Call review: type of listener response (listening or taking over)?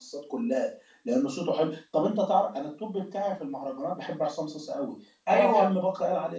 listening